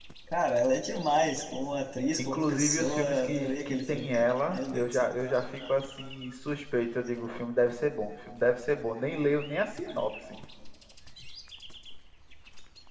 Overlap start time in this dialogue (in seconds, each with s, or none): 2.2 s